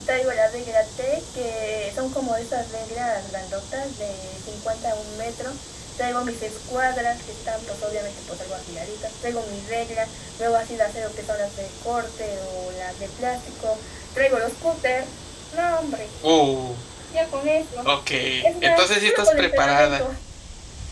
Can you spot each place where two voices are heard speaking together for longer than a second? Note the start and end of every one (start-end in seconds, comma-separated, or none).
18.6-20.0